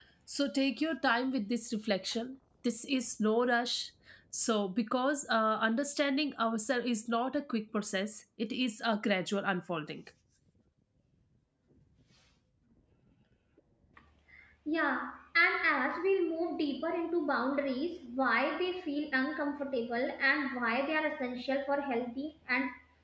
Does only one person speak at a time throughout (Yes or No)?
Yes